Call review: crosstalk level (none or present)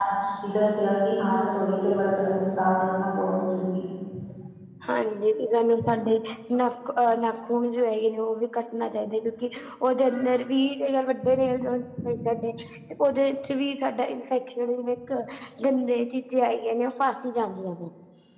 none